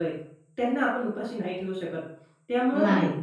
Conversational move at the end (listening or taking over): listening